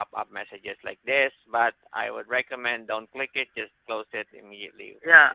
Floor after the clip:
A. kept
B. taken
B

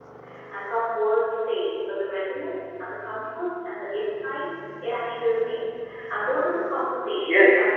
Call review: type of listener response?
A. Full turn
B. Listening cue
B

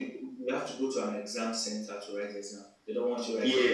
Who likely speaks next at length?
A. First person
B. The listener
B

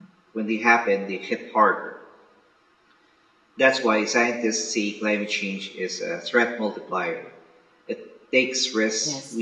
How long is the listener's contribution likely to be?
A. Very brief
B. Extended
A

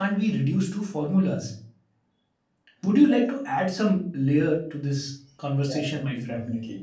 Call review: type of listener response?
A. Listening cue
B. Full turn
B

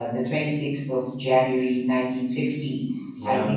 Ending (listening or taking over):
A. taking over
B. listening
B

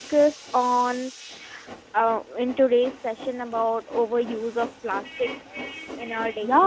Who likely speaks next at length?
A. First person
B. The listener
B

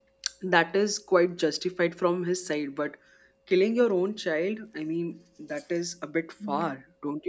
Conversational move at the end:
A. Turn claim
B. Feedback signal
A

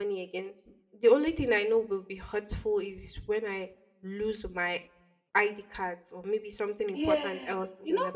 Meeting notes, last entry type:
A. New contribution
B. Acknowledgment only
A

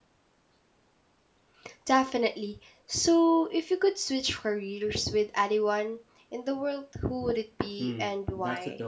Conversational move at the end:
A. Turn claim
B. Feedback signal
A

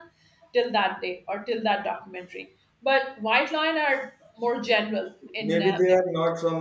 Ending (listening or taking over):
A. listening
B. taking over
B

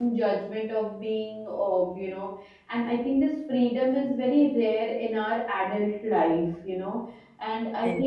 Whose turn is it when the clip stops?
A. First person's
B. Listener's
A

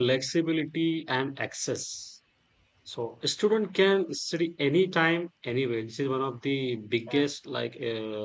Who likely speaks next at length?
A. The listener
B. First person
B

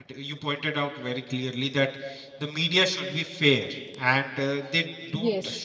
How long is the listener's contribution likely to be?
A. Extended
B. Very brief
B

